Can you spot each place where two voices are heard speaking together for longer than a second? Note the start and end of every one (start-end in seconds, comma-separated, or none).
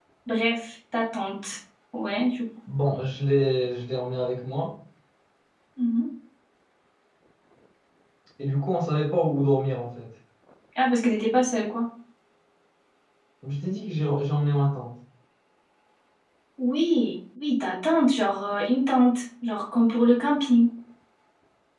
none